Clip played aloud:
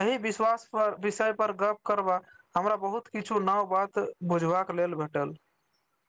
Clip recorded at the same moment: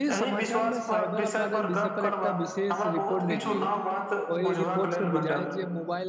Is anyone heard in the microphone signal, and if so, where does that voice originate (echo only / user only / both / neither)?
both